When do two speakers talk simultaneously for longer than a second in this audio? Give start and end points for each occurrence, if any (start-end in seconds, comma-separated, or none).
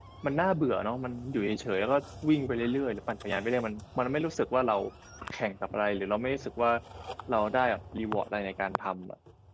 none